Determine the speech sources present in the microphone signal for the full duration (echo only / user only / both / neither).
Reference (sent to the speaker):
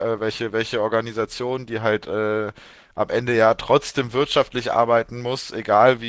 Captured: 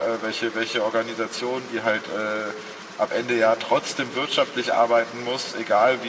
echo only